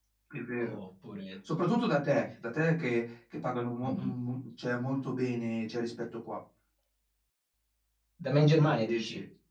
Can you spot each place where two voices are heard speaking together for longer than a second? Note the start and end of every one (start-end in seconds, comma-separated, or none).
none